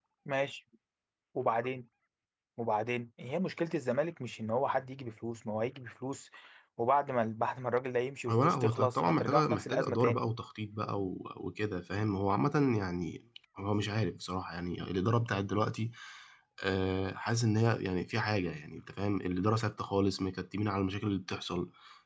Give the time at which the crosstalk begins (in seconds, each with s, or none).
8.3 s